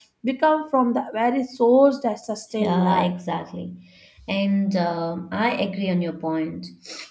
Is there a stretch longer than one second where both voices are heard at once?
No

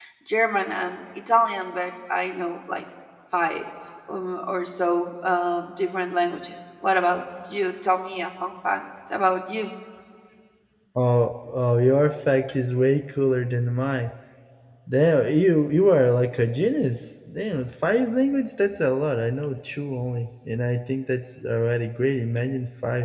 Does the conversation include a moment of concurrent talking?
No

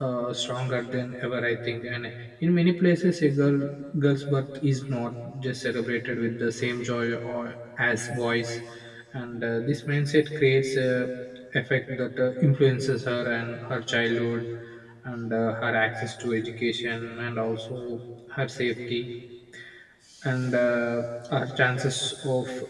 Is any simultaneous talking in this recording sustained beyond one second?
No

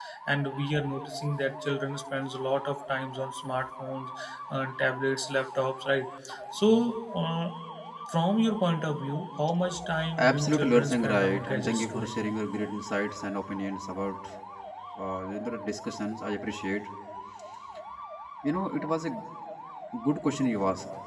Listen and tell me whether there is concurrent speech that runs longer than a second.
Yes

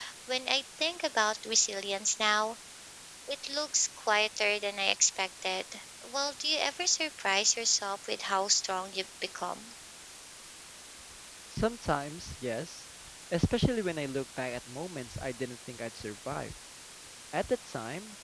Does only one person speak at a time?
Yes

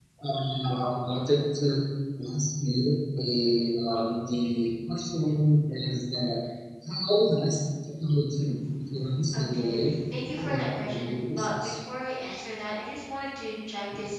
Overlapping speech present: Yes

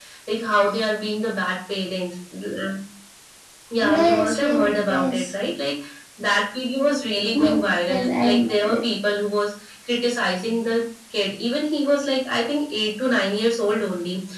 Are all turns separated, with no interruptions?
No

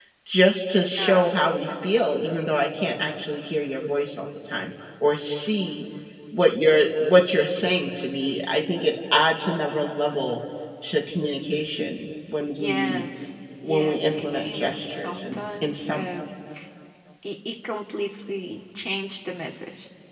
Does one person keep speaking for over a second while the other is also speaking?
Yes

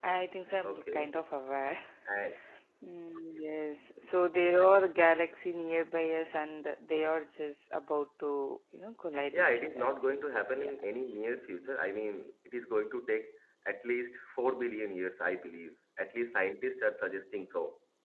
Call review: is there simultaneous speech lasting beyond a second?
Yes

